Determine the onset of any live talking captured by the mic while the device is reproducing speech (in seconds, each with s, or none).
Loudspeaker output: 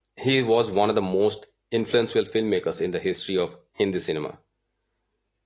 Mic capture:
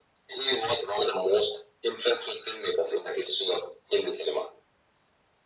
none